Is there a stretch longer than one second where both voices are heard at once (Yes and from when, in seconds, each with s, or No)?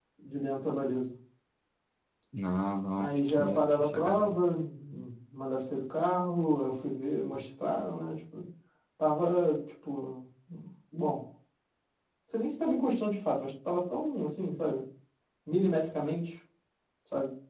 Yes, from 3.0 s